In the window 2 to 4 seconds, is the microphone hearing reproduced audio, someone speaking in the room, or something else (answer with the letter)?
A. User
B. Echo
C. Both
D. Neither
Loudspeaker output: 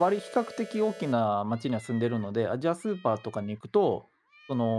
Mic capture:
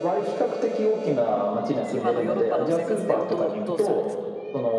C